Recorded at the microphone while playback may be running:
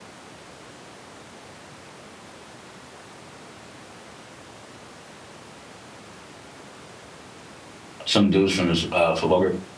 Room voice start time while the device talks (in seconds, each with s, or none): 8.0 s